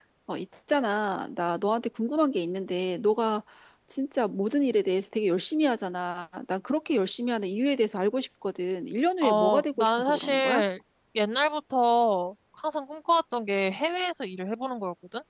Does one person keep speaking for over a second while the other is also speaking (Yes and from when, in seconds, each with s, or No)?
Yes, from 9.2 s